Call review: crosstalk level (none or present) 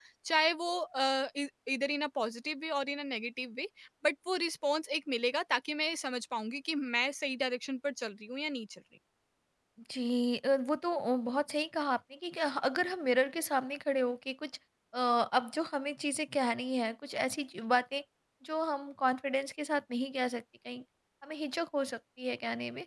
none